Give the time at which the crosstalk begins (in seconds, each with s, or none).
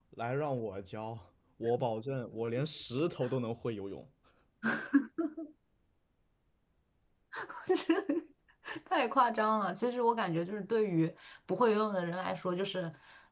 none